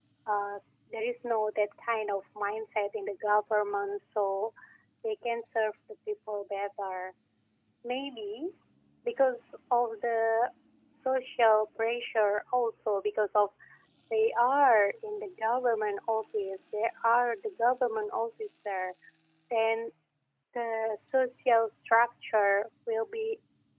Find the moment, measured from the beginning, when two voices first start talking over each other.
none

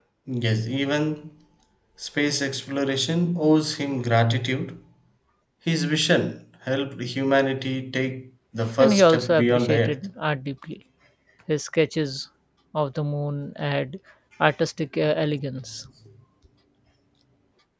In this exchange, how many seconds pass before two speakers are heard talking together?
8.8 s

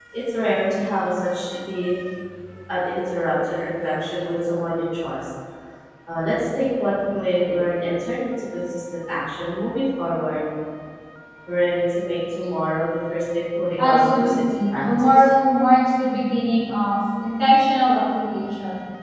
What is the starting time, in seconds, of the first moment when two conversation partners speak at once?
13.8 s

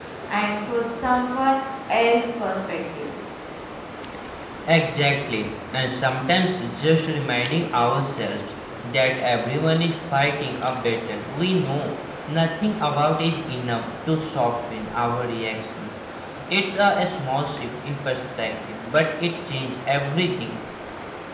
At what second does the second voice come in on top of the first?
none

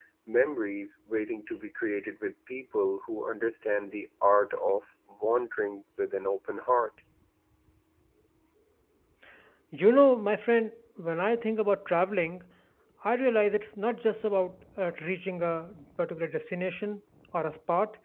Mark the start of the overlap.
none

